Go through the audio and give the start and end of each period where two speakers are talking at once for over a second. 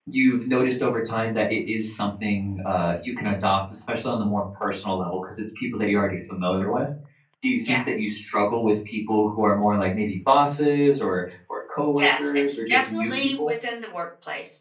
12.0-13.5

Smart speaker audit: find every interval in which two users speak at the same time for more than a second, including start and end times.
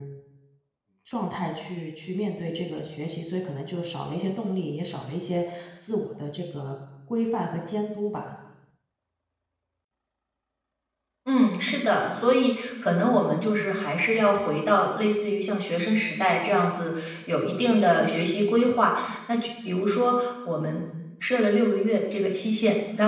none

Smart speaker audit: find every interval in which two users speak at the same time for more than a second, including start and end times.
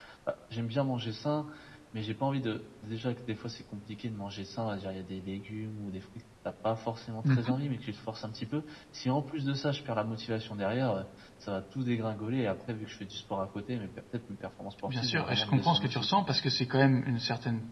14.9-16.1

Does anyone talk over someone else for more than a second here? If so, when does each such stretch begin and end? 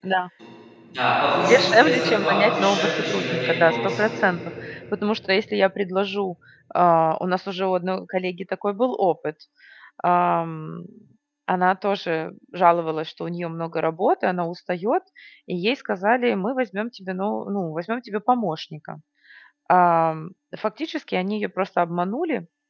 1.5-4.4

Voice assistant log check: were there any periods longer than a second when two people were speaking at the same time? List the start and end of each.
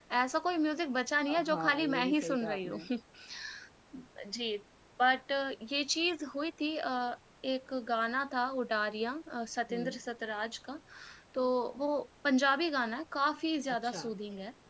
1.3-2.8

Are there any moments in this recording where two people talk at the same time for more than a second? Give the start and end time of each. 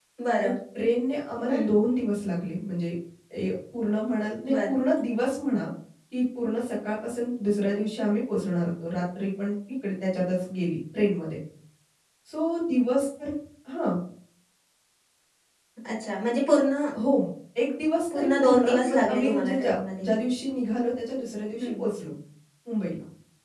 18.1-20.1

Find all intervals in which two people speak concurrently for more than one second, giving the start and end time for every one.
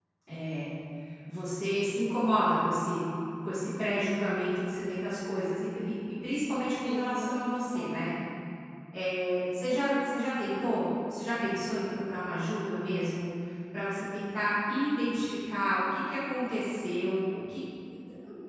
6.8-8.1

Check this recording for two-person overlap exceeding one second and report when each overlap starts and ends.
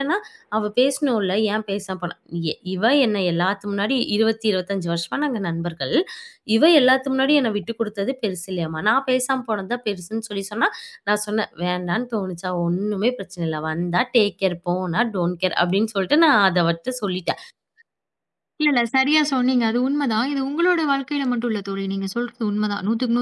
none

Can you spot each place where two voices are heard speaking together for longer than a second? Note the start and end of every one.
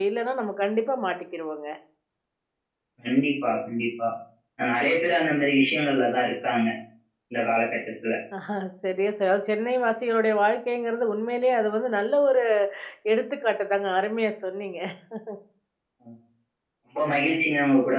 none

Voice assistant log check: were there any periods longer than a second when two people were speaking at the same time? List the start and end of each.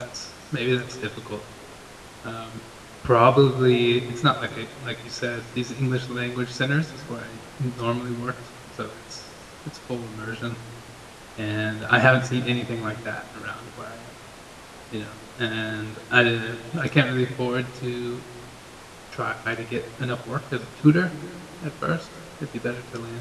none

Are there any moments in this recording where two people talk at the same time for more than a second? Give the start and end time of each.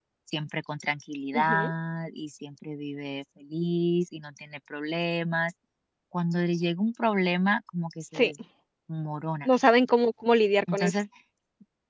none

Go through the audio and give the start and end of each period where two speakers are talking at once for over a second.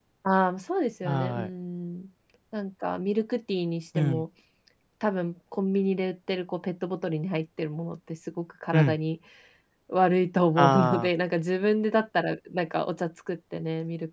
none

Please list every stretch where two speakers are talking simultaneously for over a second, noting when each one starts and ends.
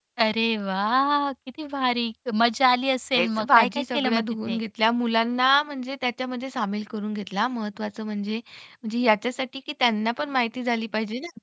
3.2-4.6

